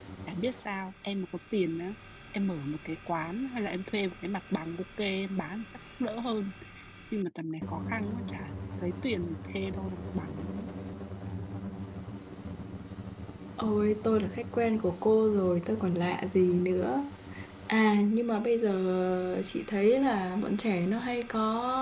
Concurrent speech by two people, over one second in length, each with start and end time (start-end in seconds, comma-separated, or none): none